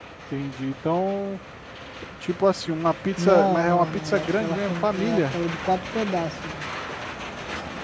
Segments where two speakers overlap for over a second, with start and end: 3.2-5.3

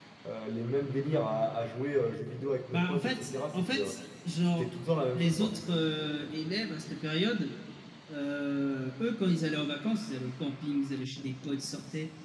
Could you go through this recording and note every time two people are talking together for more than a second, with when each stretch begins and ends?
2.7-3.9

